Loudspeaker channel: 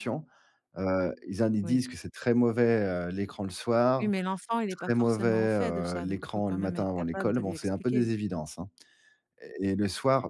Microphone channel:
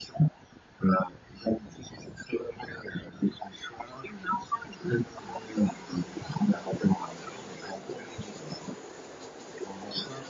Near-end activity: none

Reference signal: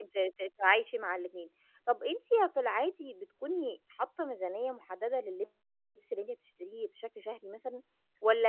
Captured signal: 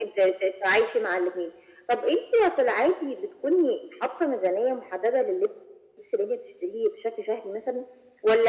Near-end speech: none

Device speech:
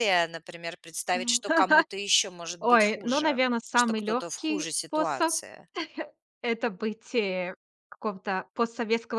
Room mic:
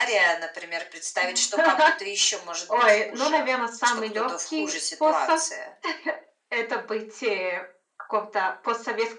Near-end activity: none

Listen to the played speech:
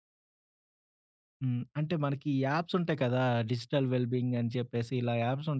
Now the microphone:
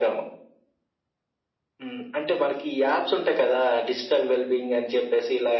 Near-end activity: none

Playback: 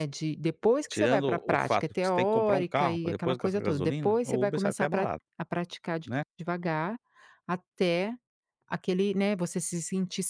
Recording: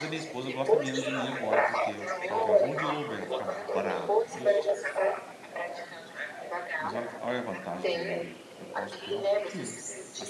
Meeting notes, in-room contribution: present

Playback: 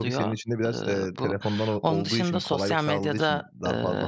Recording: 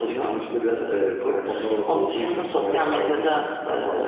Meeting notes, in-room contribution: none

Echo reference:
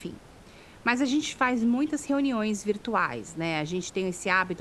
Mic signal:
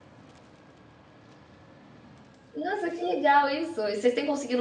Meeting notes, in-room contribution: present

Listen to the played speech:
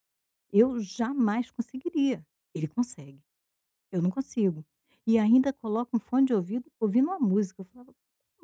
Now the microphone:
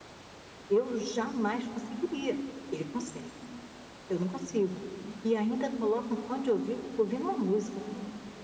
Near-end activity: none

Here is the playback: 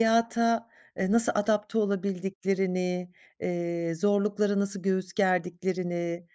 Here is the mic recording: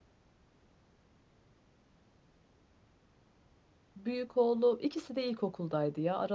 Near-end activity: present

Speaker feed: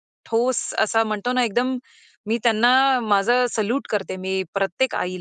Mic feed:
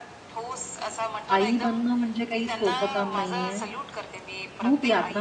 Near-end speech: present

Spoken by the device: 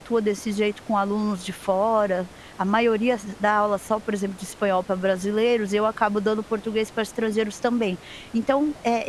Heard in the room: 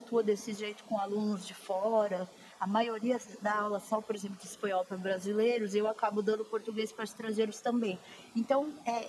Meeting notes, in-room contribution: none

